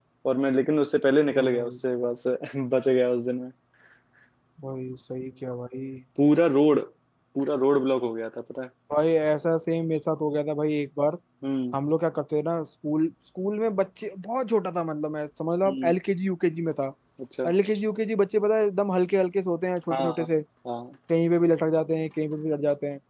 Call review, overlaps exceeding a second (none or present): none